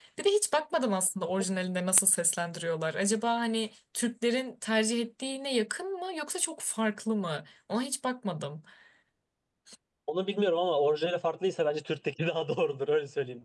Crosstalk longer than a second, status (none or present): none